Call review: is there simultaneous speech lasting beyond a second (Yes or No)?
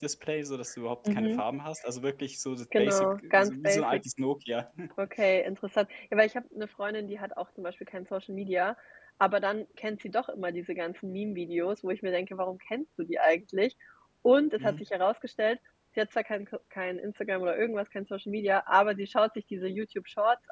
Yes